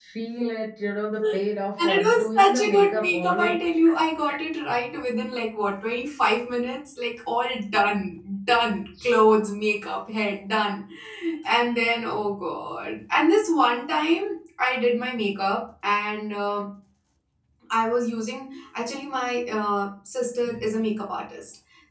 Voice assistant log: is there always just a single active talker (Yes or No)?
No